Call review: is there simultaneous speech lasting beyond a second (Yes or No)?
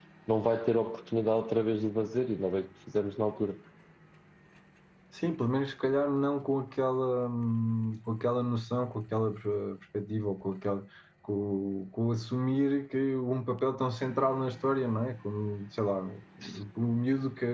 No